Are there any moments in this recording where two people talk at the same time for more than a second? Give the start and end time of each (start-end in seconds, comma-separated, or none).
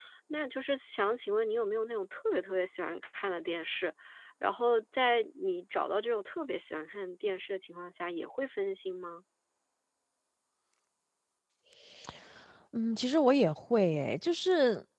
none